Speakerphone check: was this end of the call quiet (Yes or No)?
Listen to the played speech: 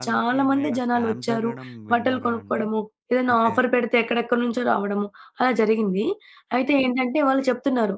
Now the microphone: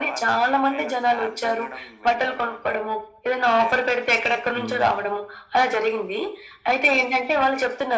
No